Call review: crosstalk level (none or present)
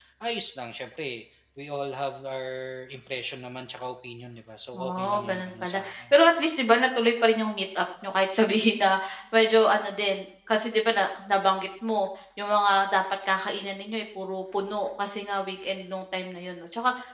present